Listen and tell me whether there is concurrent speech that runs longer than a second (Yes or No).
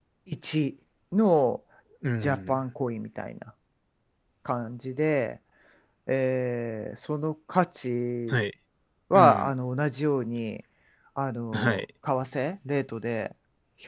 No